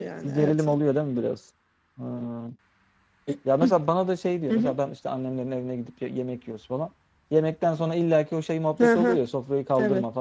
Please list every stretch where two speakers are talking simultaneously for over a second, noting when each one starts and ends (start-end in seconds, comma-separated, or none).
none